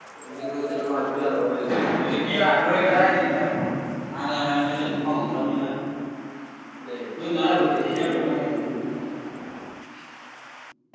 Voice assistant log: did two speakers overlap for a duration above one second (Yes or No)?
No